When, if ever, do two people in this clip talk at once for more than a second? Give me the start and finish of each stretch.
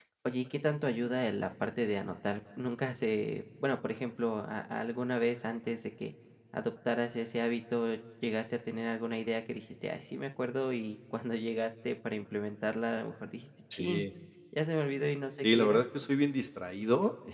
none

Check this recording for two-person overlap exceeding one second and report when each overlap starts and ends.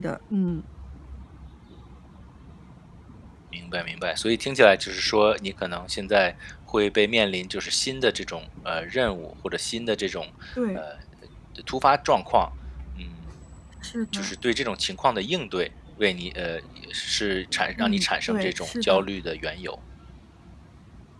17.8-19.1

